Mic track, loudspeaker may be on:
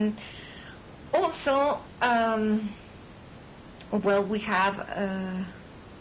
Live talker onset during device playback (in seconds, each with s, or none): none